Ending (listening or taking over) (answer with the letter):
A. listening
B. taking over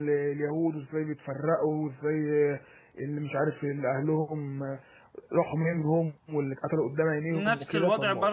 B